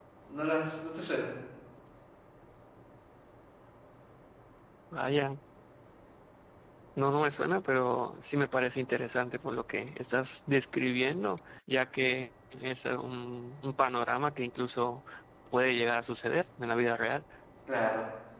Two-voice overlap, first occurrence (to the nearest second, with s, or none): none